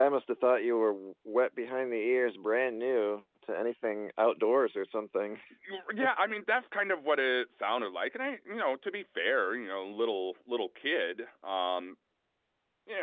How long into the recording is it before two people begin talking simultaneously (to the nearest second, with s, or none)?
none